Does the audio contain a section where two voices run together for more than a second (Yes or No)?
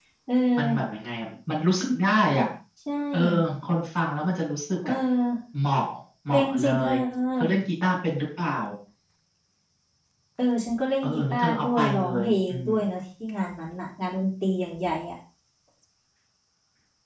Yes